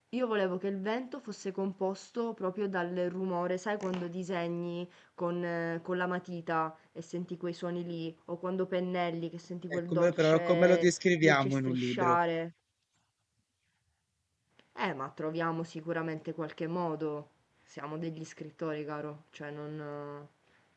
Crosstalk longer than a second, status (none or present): present